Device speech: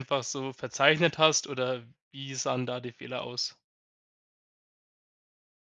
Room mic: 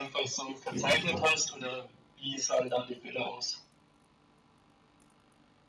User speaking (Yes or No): Yes